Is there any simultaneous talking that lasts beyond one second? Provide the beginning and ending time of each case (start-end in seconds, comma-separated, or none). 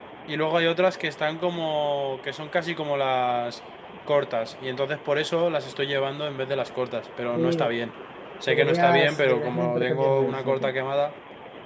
8.5-10.7